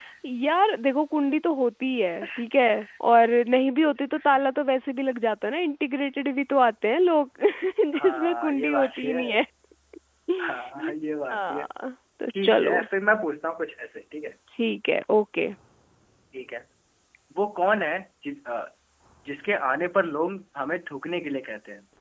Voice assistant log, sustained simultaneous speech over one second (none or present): present